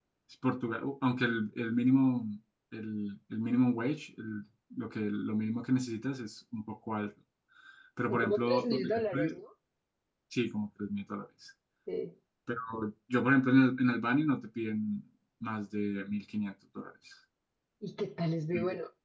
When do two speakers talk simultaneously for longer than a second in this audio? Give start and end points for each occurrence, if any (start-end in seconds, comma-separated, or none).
8.1-9.4